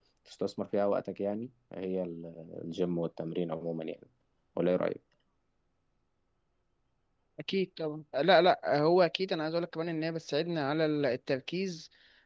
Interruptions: none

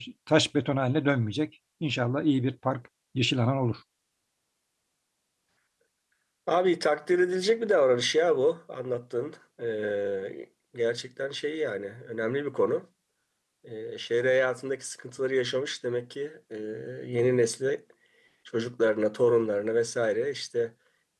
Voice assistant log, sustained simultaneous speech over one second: none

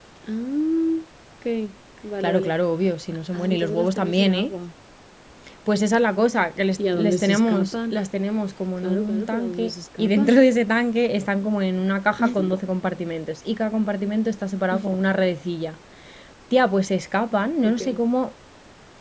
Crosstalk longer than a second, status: present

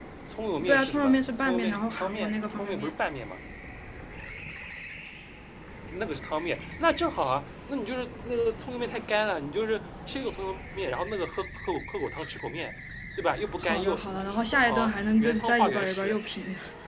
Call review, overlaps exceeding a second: present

